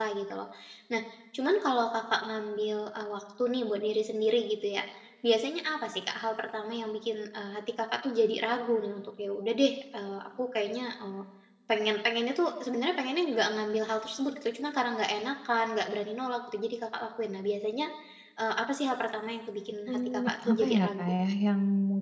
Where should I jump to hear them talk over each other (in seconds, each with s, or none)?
19.9 s